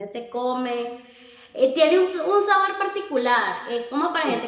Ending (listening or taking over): listening